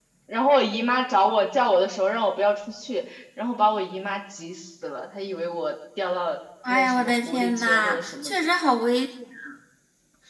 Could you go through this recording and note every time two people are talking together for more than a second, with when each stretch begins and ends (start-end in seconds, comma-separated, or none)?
6.7-8.3